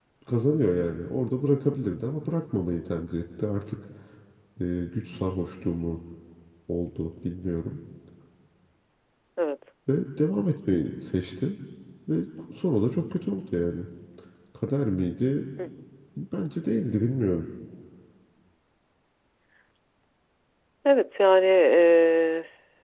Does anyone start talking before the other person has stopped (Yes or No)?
No